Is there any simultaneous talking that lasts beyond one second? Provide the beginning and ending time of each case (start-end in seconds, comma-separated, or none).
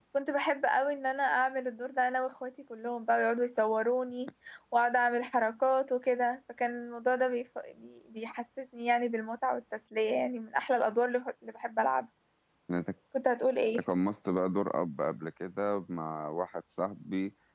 none